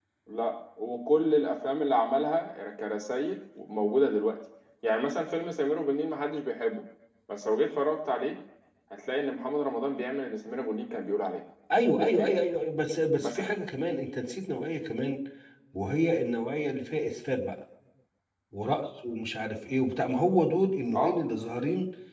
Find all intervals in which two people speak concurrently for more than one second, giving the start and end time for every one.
none

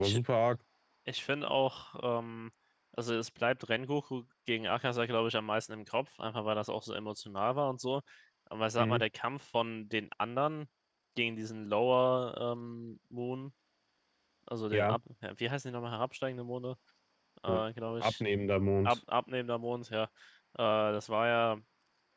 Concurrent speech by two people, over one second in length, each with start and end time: none

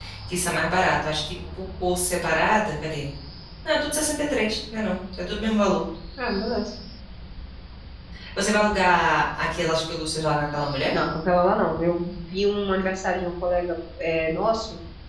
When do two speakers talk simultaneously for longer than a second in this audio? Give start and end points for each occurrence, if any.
none

